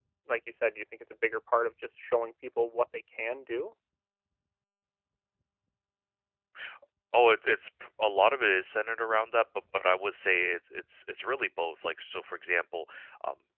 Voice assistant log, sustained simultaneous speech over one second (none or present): none